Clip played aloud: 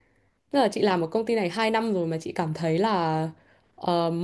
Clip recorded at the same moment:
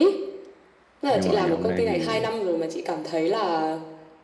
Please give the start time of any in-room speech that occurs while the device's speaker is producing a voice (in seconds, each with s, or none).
1.1 s